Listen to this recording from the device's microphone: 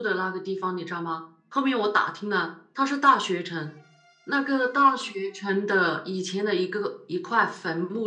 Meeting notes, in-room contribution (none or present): none